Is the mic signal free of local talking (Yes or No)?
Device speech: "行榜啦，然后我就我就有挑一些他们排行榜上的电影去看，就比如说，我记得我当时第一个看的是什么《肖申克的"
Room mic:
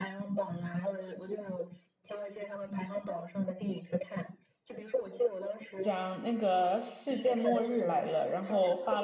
No